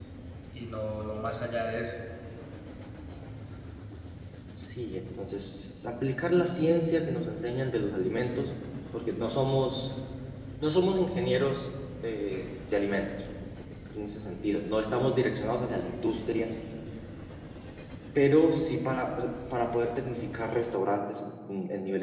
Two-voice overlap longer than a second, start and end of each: none

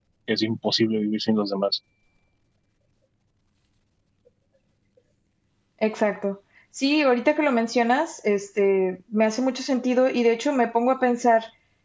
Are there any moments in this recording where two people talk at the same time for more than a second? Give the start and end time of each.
none

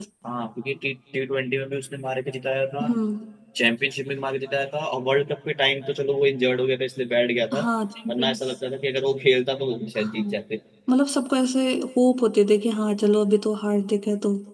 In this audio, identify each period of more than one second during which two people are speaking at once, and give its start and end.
none

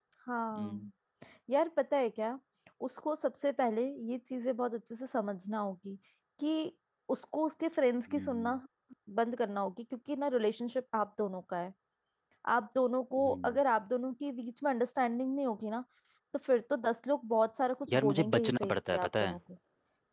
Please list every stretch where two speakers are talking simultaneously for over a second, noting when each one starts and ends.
17.9-19.4

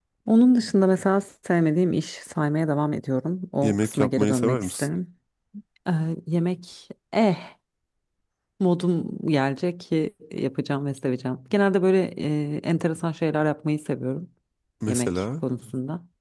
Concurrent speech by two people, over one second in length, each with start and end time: 3.6-4.9

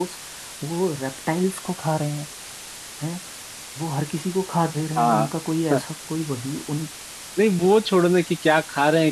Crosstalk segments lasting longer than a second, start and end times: none

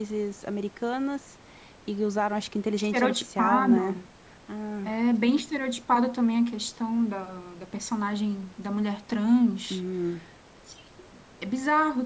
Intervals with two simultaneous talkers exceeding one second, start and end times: 2.8-4.0

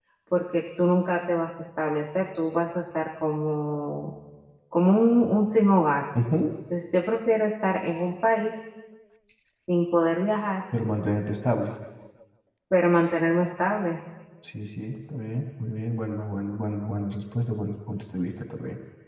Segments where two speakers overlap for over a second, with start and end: none

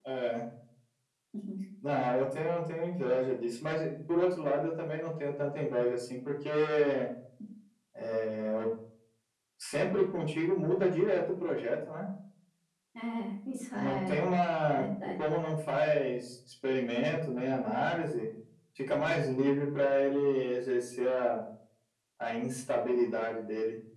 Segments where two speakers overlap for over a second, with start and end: none

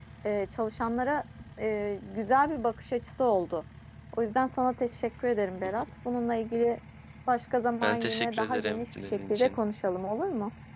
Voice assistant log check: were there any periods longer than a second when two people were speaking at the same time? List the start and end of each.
7.8-9.6

